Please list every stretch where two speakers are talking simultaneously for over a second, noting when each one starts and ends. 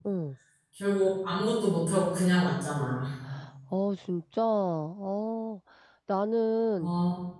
none

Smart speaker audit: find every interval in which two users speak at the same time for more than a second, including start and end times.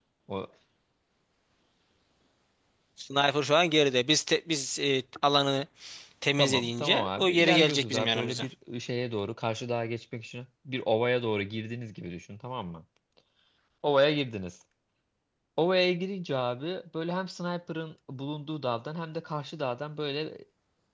6.4-8.5

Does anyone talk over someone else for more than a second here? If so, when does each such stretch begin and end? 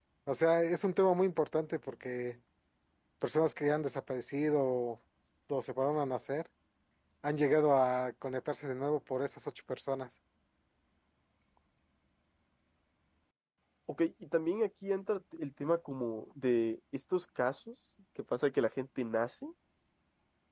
none

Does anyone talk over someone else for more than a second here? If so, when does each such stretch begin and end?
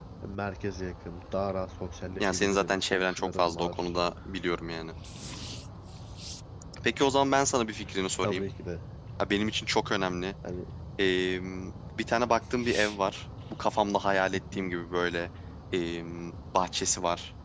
2.2-4.0

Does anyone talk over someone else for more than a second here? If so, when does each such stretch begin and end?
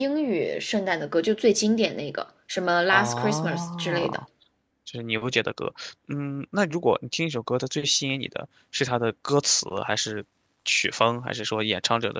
2.9-4.2

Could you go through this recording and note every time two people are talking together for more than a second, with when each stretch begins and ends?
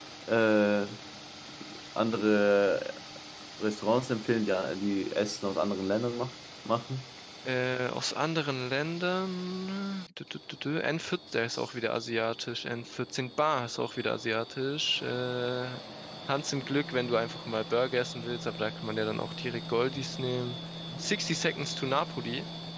none

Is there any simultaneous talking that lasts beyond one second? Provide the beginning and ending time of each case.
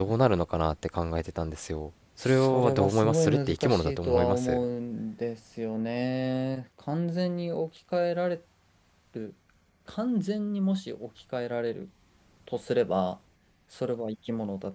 2.2-4.6

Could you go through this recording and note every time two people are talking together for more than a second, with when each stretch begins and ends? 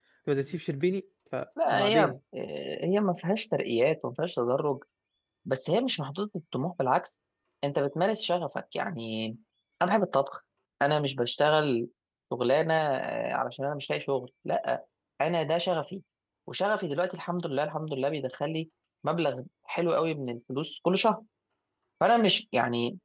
none

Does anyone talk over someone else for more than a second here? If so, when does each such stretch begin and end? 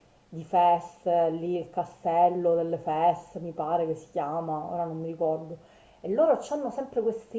none

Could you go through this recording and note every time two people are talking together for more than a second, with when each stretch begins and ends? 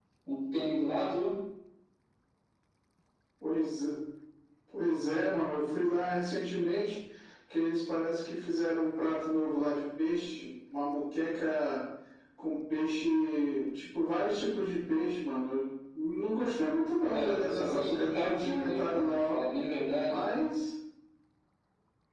17.1-19.4

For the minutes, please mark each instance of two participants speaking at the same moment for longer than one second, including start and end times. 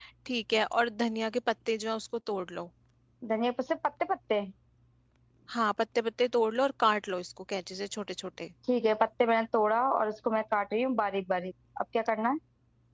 none

